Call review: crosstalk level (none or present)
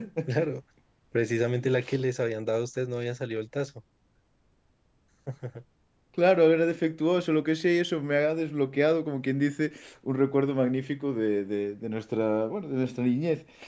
none